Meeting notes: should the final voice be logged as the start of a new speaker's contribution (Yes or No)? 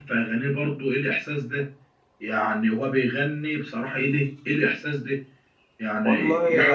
No